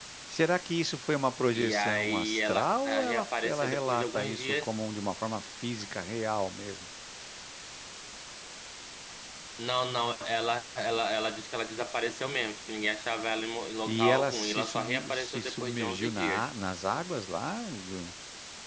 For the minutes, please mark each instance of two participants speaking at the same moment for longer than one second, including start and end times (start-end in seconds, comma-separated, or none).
1.5-4.7, 13.9-16.5